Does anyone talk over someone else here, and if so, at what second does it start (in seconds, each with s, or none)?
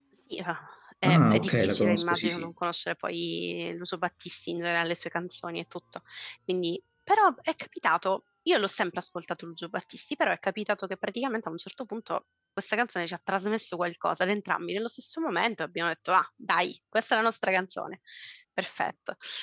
1.0 s